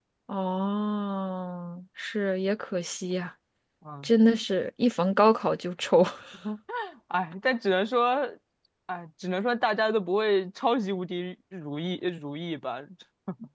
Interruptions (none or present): none